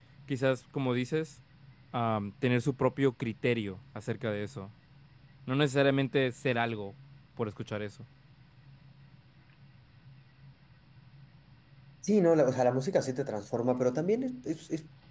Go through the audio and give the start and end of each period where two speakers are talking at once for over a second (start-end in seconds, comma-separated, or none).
none